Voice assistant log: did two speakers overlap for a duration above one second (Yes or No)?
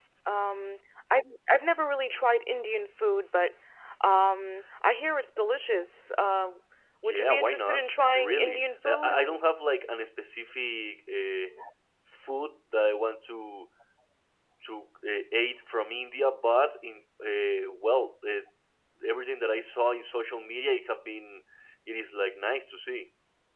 Yes